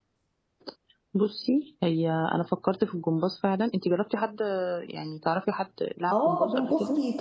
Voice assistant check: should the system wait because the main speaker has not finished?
No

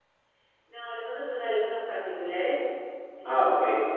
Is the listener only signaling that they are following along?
Yes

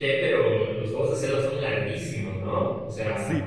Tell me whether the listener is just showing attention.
No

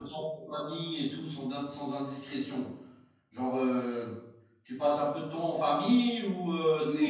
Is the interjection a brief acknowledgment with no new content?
No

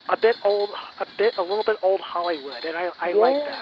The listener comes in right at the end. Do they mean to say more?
Yes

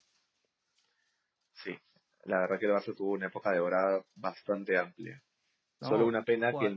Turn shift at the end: No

